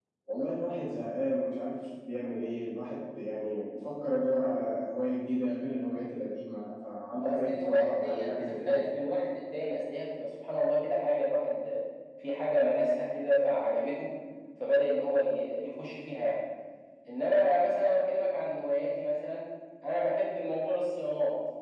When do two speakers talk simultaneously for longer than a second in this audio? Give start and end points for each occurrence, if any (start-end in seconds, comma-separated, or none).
7.2-8.8